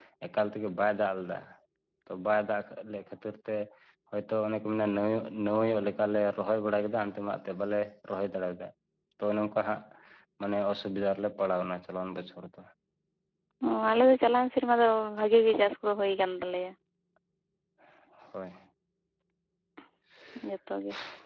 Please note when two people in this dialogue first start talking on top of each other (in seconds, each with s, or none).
none